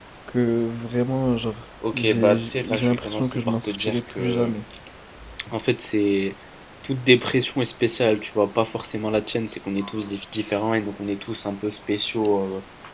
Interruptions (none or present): present